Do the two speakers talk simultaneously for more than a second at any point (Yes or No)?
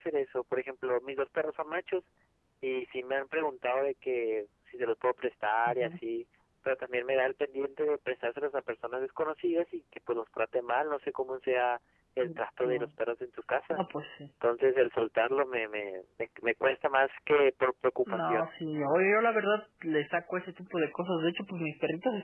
No